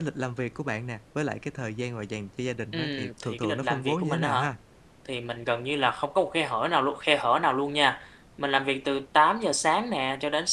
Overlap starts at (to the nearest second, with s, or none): 3 s